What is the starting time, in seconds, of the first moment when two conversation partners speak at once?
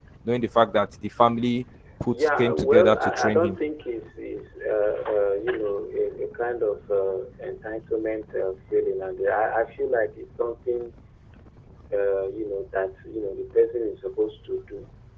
2.1 s

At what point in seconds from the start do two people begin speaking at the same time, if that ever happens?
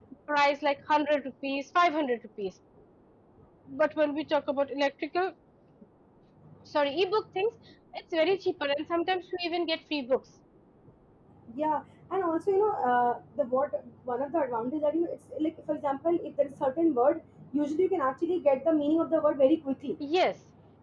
none

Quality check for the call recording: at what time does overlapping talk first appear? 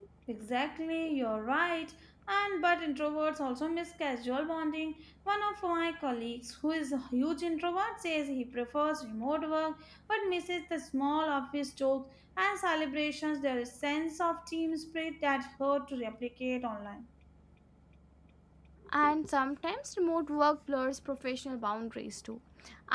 none

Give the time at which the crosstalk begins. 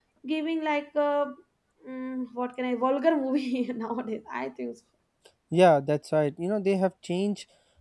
none

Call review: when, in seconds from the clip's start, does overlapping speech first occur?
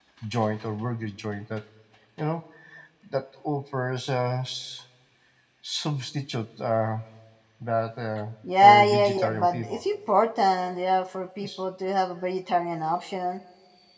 8.4 s

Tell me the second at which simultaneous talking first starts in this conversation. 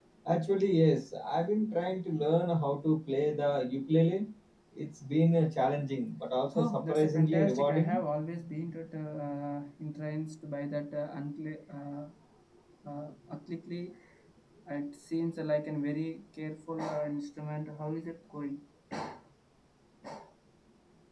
6.5 s

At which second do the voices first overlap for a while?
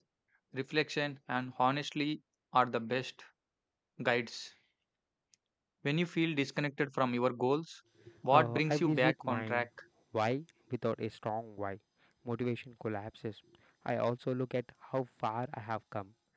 8.3 s

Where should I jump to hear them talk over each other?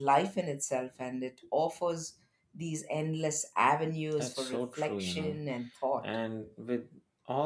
4.2 s

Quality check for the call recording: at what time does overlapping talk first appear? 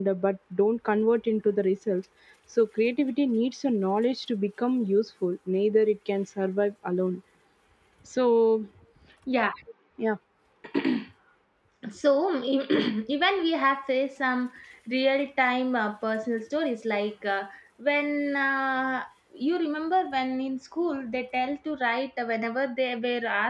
none

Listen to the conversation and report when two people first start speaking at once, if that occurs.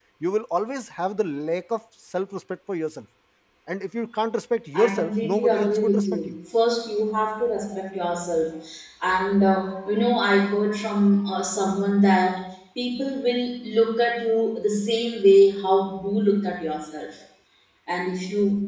4.7 s

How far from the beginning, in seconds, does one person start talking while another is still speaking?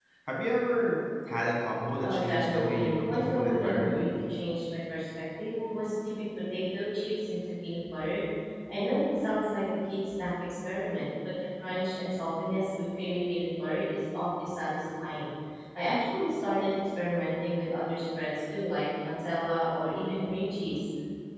1.9 s

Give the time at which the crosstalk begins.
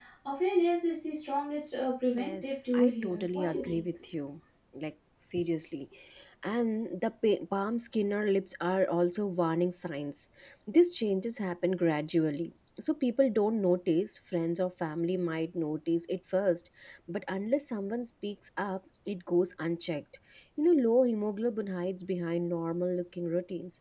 2.2 s

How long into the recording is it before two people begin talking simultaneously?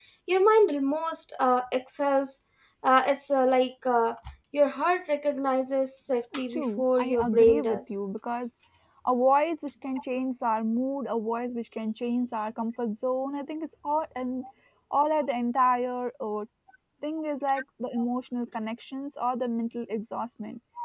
6.3 s

